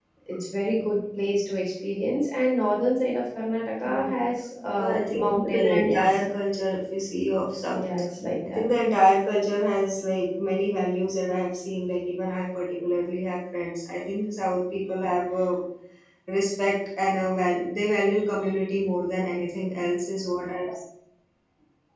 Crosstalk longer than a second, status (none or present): present